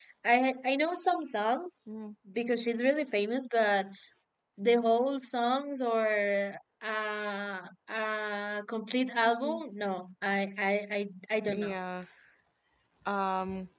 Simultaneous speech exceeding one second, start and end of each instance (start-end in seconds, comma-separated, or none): none